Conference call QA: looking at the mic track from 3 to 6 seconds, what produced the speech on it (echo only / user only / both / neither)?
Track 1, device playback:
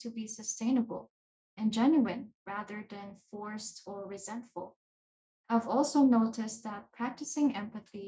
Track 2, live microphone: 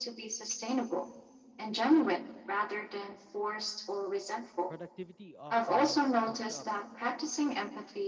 both